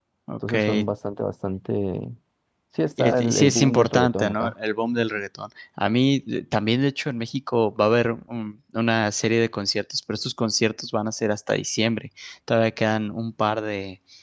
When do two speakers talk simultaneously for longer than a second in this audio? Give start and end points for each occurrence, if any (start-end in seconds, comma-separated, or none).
3.0-4.5